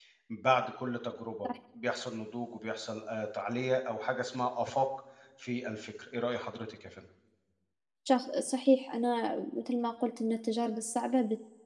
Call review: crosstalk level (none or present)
none